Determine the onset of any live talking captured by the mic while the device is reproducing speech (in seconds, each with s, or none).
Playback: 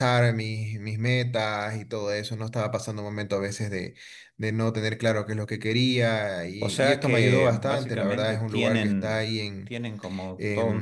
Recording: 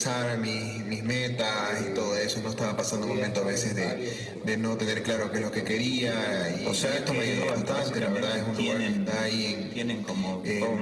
1.6 s